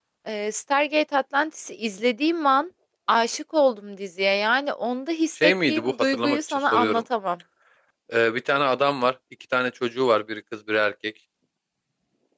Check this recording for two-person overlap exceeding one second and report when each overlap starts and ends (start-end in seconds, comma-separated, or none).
5.4-7.0